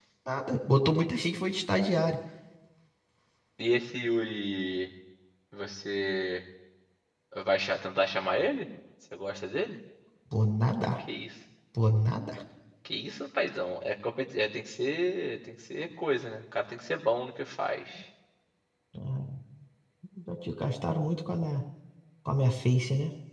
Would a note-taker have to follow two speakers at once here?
No

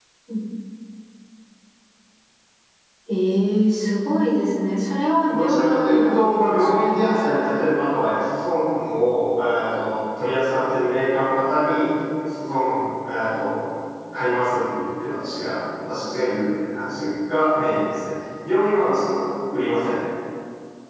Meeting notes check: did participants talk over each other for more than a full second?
Yes, from 5.3 s

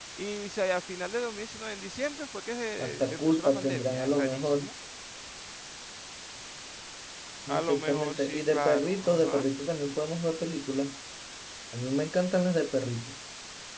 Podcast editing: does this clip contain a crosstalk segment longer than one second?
Yes, from 2.8 s

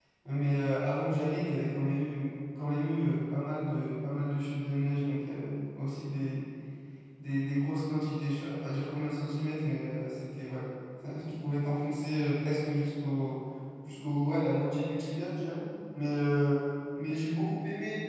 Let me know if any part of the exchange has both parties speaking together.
No

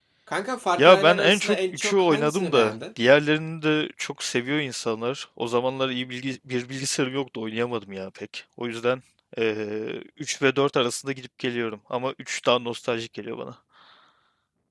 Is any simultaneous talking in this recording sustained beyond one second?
Yes, from 0.8 s

